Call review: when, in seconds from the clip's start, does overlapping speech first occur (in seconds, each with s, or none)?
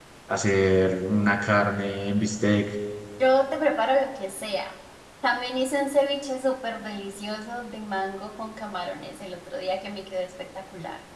none